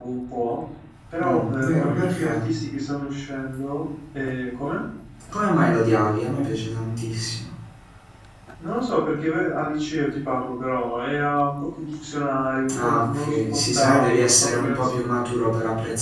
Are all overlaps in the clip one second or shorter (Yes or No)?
No